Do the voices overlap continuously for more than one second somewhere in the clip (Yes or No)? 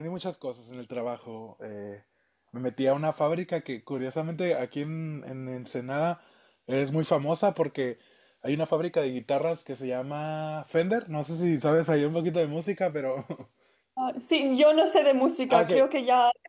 No